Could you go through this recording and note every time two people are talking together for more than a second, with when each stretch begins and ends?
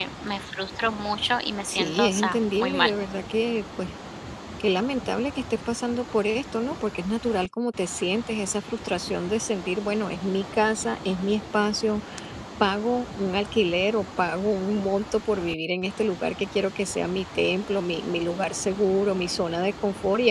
1.7-2.9

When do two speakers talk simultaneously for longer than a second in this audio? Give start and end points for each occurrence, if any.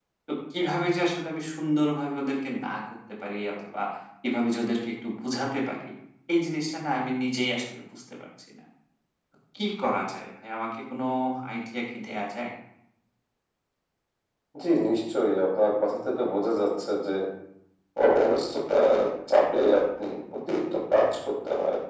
none

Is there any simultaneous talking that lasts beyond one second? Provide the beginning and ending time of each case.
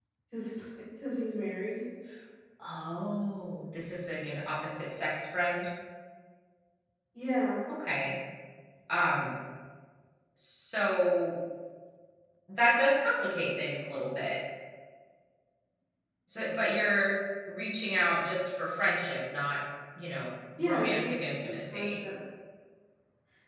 20.6-22.0

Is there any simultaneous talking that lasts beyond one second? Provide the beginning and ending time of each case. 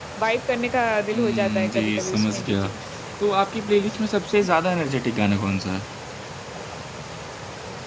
1.1-2.7

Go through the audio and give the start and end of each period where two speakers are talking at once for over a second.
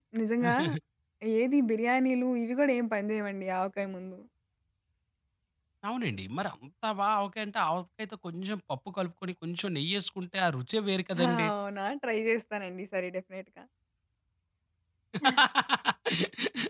none

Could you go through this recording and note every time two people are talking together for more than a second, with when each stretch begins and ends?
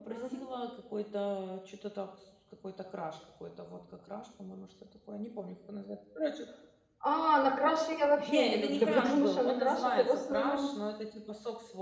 8.3-10.7

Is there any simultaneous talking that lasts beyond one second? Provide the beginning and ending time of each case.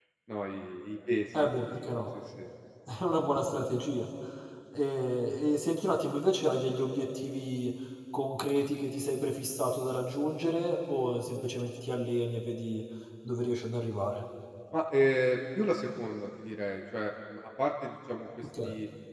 none

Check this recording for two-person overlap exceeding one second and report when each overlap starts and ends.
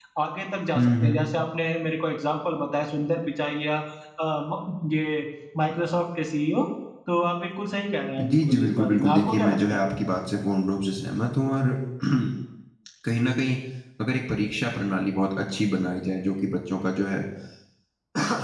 8.3-9.8

